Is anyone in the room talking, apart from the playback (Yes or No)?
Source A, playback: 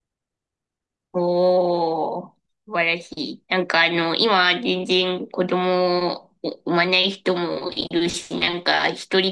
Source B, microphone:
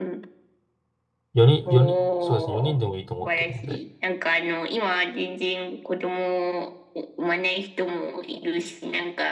Yes